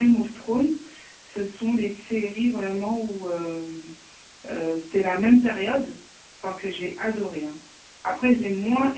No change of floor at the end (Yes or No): Yes